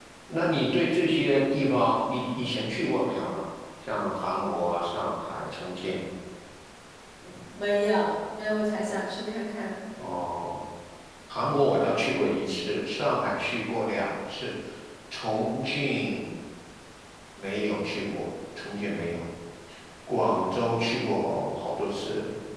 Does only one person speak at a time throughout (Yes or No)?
Yes